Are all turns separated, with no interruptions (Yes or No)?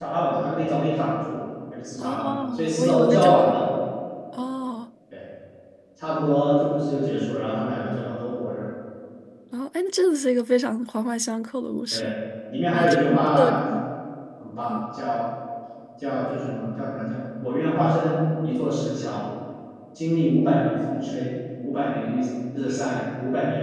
No